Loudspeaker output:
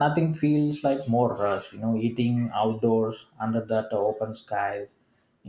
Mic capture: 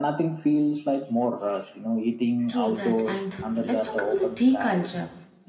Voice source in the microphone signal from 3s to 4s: both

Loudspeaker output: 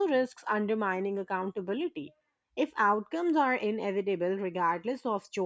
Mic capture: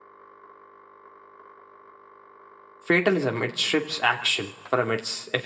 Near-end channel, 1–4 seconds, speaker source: user only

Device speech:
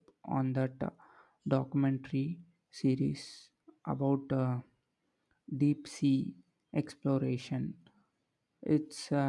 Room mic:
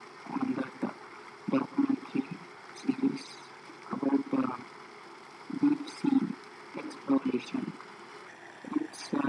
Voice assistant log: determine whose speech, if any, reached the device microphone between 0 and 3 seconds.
echo only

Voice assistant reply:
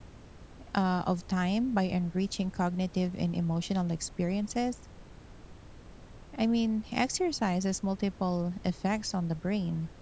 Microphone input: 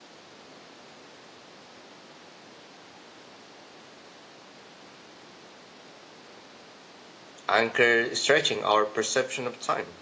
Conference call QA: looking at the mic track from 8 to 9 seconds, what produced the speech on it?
user only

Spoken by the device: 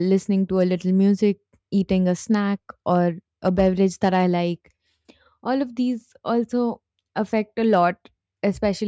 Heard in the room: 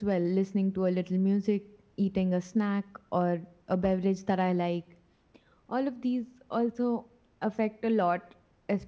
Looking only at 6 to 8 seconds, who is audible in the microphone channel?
echo only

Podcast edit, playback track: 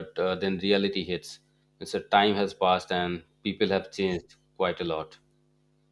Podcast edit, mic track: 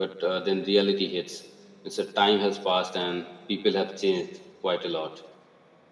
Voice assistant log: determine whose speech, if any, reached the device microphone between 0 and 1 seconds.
echo only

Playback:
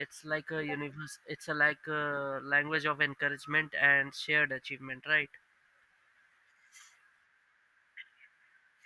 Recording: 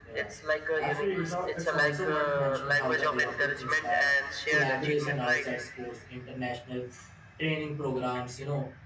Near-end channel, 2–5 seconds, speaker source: both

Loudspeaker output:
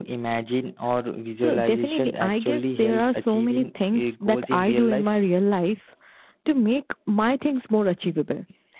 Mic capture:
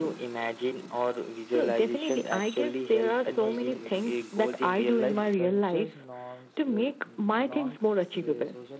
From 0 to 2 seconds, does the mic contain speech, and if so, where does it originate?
echo only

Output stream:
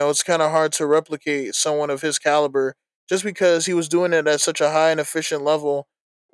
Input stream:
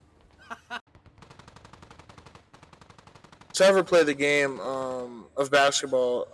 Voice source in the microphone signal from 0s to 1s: neither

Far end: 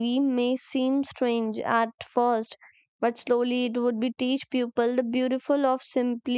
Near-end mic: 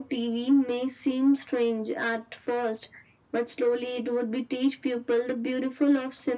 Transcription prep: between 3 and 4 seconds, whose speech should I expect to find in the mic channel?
echo only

